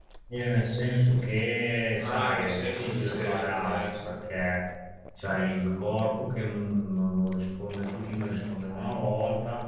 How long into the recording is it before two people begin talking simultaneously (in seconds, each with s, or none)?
2.0 s